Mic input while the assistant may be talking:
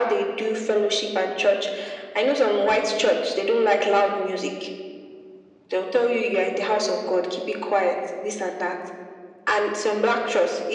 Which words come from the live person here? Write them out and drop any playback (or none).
none